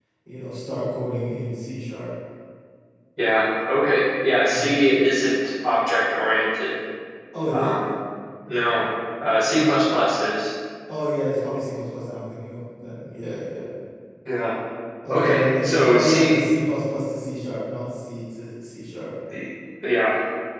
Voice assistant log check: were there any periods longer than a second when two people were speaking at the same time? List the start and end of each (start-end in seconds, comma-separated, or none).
15.1-16.4